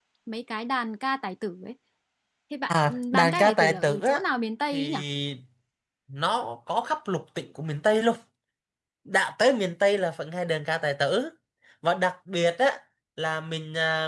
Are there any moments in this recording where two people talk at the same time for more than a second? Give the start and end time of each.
2.7-4.2

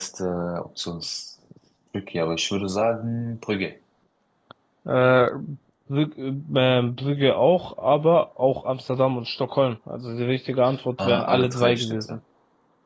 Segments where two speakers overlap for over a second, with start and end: 11.0-12.2

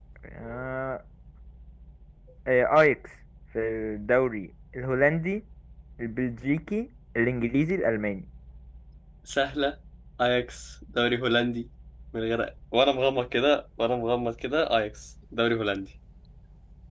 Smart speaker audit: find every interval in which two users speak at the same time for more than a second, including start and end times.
none

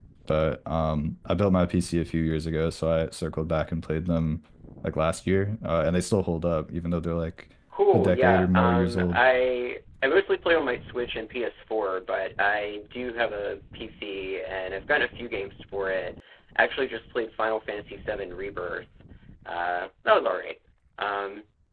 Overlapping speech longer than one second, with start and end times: 7.9-9.2

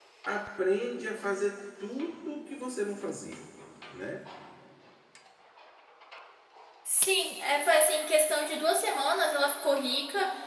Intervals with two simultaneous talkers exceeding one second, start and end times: none

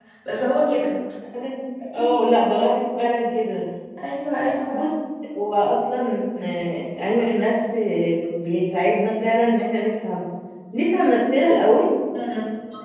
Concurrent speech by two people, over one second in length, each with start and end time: none

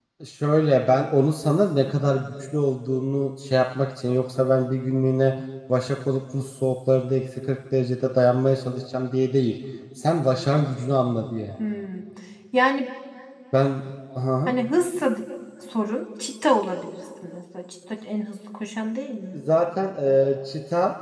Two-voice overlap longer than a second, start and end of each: none

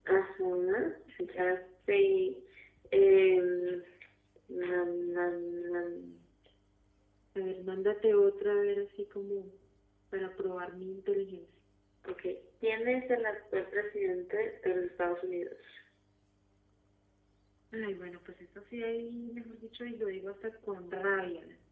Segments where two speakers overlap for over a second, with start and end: none

